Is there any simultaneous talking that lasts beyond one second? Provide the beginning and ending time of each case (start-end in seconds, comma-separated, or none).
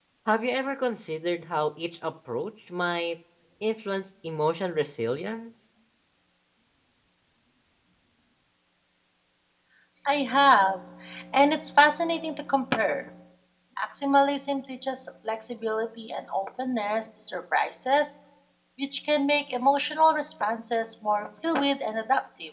none